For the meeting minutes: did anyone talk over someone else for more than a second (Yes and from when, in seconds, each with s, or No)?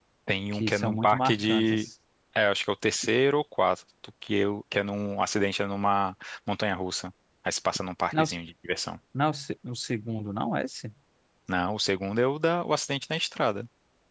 Yes, from 0.5 s